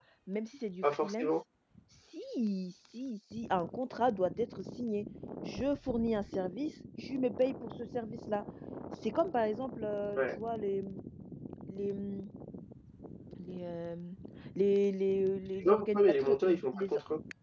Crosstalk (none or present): present